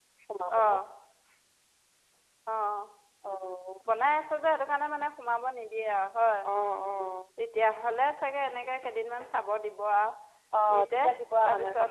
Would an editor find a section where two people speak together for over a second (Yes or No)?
No